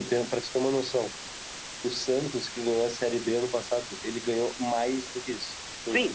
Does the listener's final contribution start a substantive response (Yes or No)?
Yes